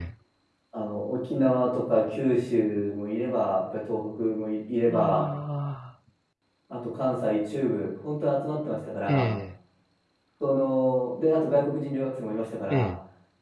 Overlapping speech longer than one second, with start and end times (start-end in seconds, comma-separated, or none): none